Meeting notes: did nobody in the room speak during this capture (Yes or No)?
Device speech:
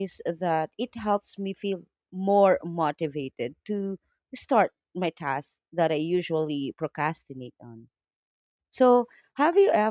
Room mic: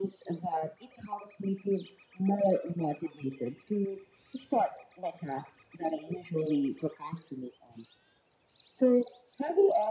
Yes